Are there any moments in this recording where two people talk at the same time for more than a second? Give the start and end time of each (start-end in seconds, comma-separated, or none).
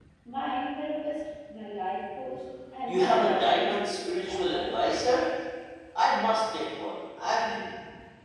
2.9-5.0